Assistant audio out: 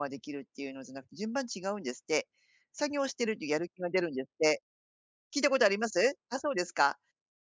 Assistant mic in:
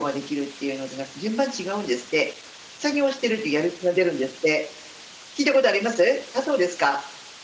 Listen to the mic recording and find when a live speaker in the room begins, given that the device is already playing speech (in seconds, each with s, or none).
none